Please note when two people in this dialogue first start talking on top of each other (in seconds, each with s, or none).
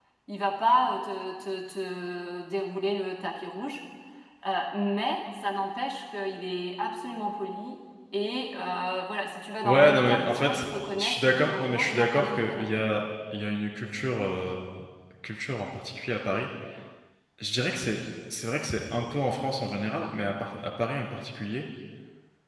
9.6 s